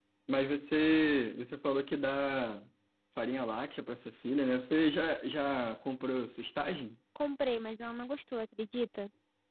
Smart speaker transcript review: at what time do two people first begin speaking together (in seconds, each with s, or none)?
none